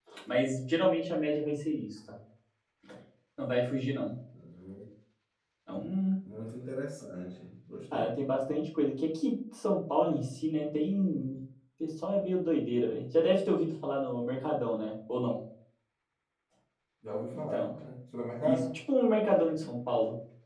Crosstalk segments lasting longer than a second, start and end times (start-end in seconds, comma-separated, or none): none